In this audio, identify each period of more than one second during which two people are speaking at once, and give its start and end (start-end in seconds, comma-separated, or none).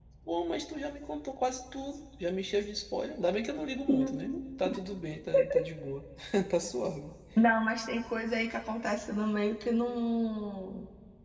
none